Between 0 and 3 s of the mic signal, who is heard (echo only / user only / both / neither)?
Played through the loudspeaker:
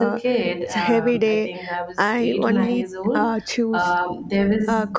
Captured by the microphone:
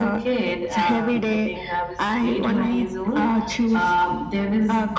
echo only